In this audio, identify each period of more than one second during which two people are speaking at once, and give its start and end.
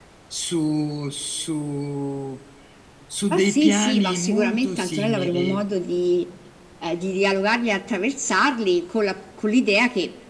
3.3-5.6

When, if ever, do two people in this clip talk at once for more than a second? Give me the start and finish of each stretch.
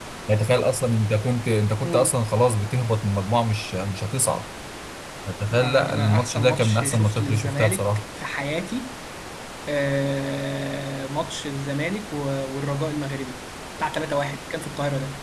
5.6-7.9

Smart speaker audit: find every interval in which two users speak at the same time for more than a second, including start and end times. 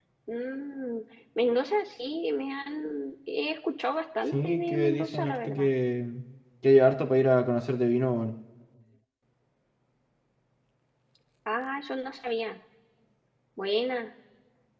4.3-5.7

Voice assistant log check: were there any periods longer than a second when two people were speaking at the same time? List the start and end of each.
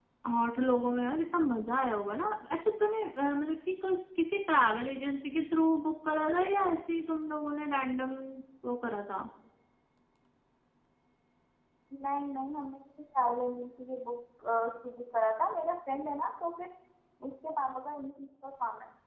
none

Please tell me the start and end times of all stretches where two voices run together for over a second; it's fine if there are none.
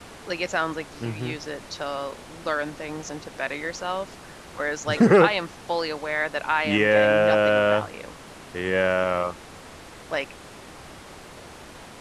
6.6-7.8

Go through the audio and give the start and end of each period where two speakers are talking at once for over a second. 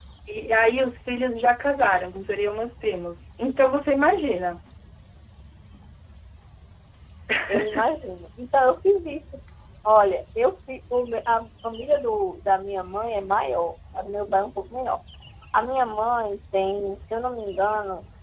none

